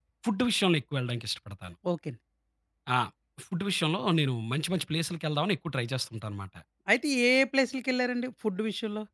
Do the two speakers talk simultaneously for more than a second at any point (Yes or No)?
No